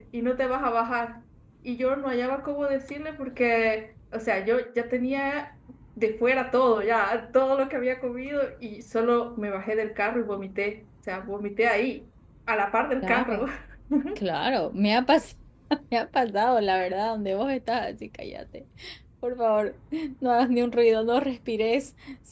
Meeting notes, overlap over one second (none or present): none